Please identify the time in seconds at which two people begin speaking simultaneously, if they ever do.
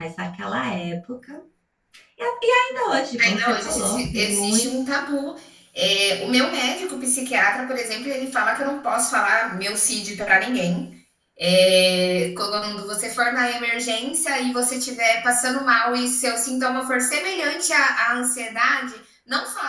3 s

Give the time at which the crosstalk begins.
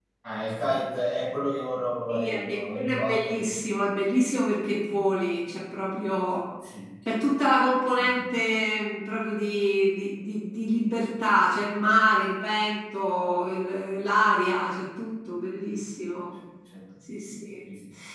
2 s

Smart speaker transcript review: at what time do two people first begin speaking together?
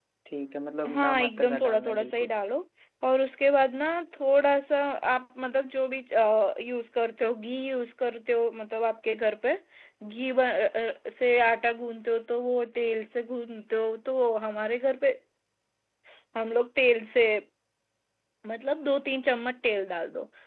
1 s

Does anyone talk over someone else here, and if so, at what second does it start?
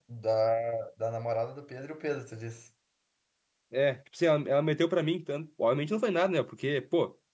none

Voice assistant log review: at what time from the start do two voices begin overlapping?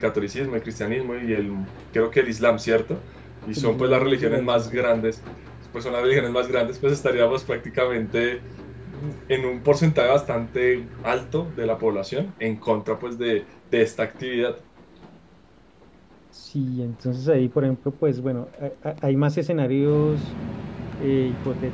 4 s

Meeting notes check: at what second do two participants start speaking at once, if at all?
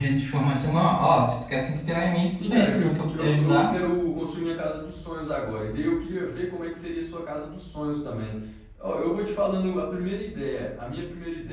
2 s

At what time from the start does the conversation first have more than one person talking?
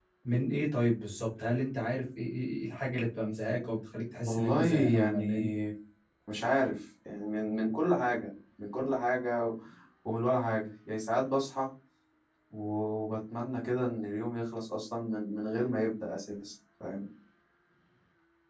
4 s

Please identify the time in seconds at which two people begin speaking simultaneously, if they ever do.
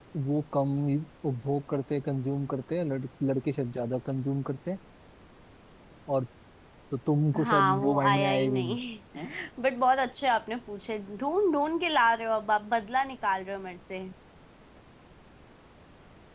7 s

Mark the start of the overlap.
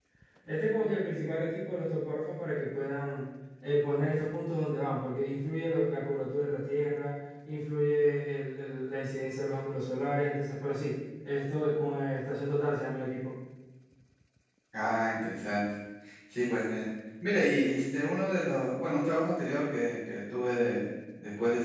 none

